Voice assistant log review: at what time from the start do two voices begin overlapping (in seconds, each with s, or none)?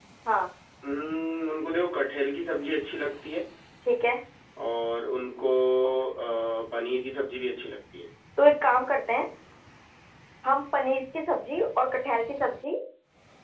none